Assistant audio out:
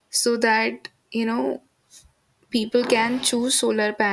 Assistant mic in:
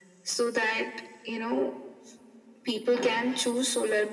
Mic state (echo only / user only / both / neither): echo only